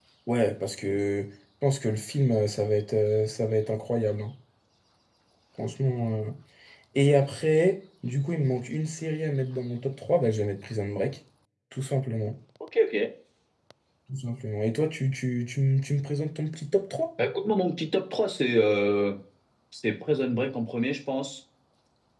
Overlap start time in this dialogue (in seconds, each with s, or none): none